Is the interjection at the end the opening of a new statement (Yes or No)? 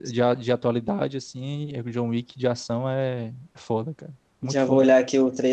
Yes